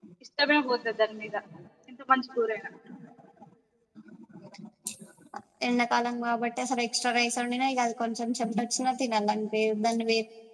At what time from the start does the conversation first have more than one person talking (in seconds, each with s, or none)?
none